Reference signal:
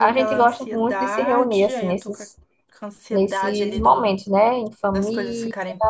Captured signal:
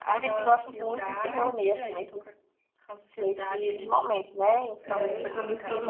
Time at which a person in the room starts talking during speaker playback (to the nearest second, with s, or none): 5 s